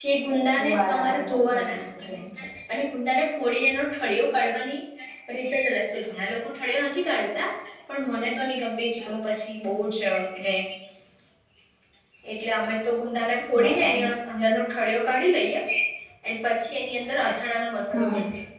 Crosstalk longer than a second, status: present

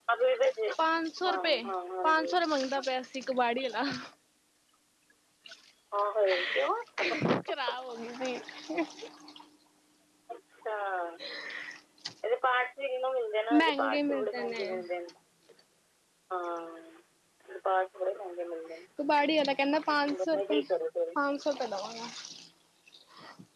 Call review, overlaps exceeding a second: present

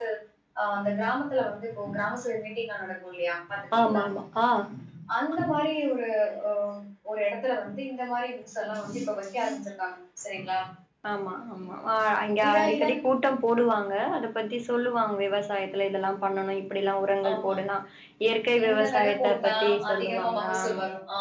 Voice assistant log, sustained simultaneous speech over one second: present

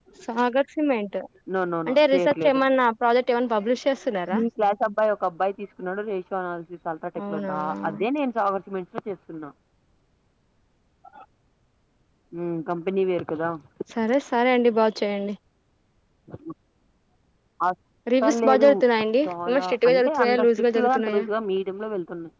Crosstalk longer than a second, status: present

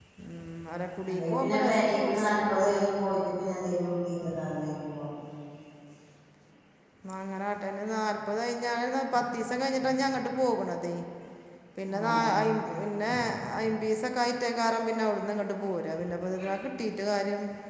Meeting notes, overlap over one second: present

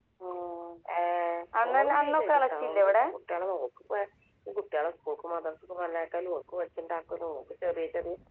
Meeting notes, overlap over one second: present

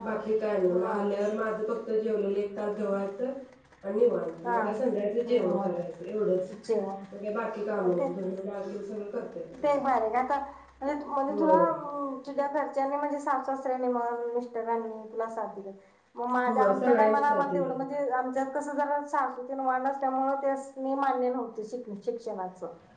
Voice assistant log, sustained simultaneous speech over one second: present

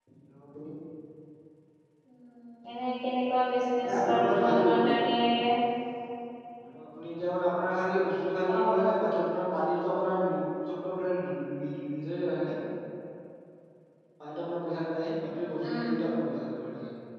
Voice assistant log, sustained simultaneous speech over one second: present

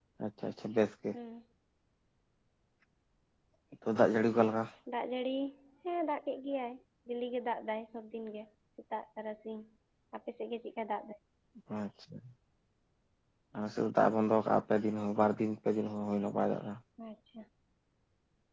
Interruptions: none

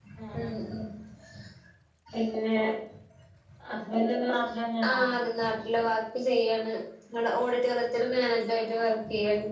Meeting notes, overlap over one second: none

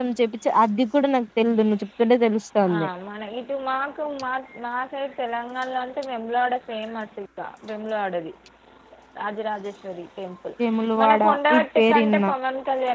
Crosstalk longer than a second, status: present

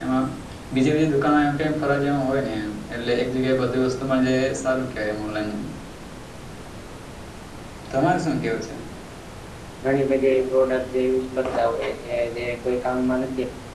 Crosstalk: none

